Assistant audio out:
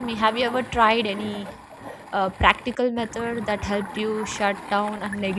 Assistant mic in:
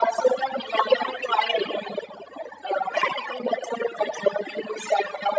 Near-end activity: none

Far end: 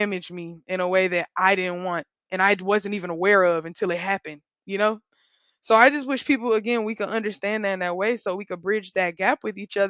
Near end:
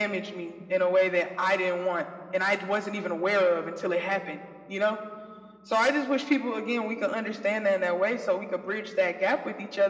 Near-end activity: none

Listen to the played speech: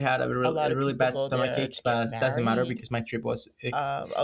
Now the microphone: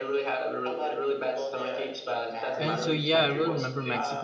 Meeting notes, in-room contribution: present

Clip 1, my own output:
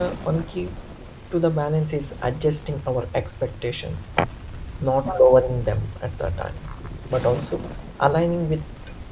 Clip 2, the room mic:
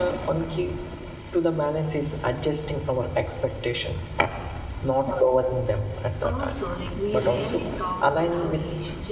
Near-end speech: present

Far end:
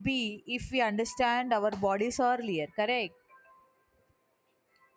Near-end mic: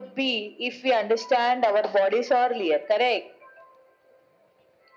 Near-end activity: none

